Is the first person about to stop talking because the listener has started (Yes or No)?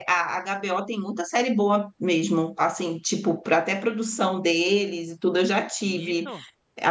No